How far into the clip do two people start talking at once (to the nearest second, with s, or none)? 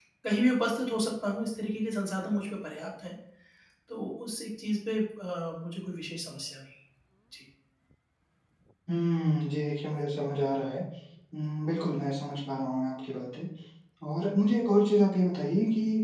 none